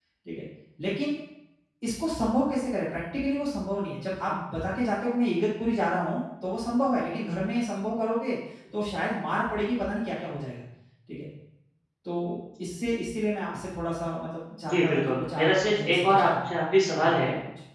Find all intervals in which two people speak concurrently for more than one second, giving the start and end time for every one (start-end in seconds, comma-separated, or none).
14.7-16.5